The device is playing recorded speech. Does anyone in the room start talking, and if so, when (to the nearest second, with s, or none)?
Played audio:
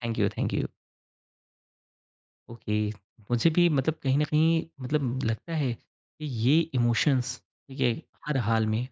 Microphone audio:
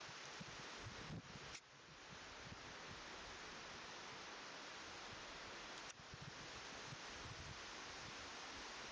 none